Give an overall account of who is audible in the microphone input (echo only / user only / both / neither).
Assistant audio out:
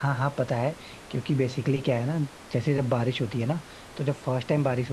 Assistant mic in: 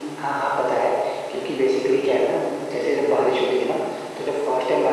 echo only